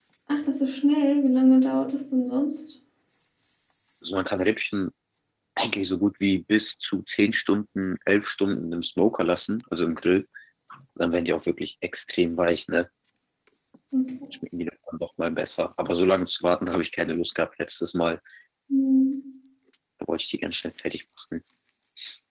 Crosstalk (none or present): none